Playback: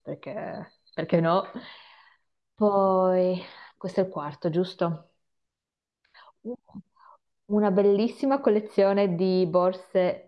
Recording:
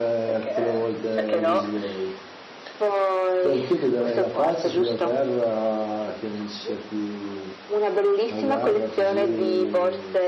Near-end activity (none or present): present